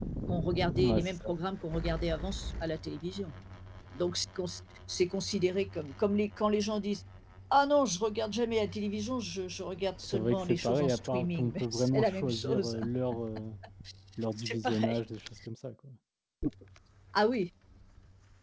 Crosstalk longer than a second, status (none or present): present